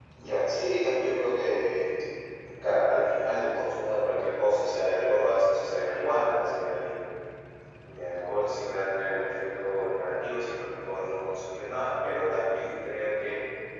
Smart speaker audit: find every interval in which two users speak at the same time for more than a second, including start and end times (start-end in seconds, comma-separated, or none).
none